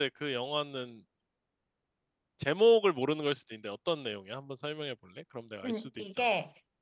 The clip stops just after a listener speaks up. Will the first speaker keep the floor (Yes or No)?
No